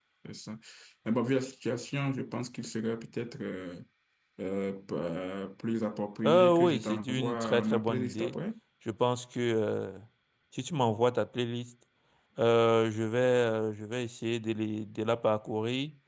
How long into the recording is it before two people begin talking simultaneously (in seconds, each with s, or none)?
6.2 s